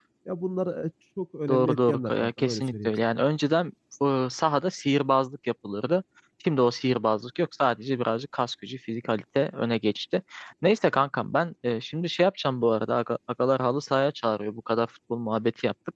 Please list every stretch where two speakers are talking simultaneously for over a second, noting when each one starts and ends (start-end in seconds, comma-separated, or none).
1.5-2.9